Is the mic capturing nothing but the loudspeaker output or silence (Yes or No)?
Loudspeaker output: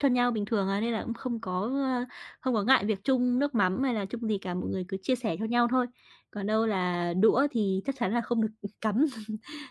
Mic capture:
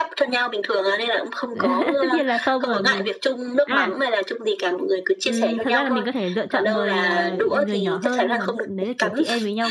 No